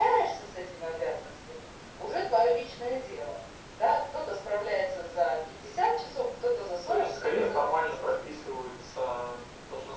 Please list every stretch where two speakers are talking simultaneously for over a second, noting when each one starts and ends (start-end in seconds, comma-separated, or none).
6.9-8.1